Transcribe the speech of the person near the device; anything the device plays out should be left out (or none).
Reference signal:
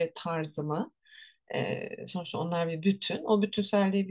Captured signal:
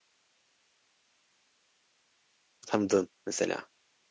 tanıdığın mesela?